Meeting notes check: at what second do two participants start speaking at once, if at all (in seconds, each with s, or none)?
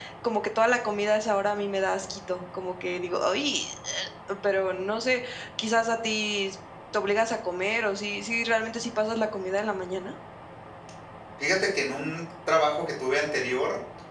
none